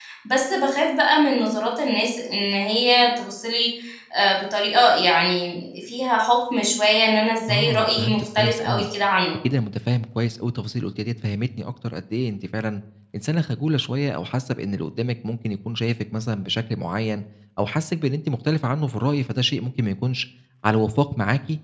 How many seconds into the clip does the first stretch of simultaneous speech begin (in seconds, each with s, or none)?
7.5 s